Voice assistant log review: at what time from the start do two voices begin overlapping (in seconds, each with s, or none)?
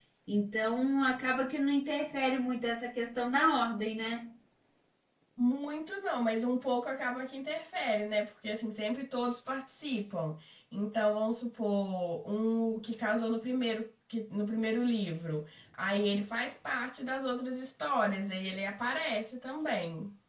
none